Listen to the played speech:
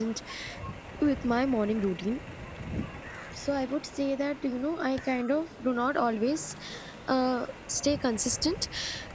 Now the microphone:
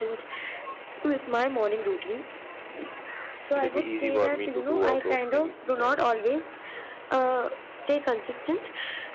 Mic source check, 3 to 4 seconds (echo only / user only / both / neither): both